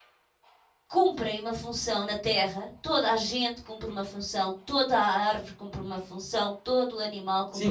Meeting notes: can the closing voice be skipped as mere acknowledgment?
No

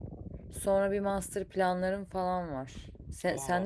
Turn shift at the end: No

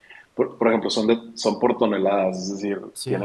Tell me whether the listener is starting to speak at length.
No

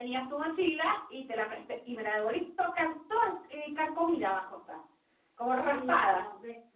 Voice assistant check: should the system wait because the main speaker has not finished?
No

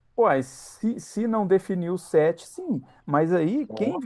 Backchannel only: Yes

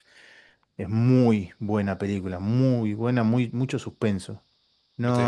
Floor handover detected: No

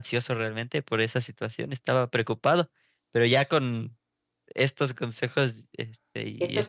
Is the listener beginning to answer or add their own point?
Yes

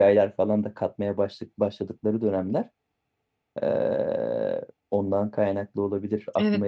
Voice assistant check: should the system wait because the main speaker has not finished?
No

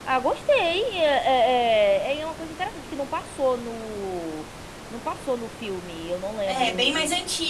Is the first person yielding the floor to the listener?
Yes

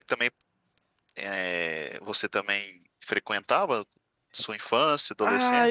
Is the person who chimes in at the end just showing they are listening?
No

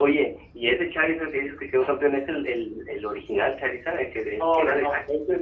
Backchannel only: No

